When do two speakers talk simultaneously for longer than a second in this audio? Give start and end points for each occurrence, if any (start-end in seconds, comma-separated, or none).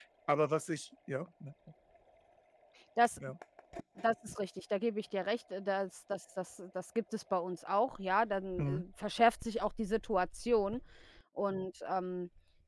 none